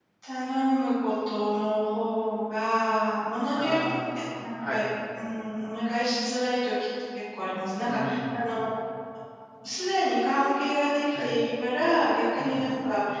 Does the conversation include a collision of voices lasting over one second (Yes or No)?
Yes